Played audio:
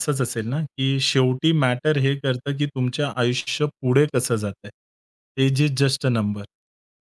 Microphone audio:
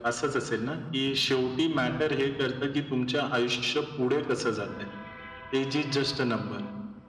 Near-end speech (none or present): none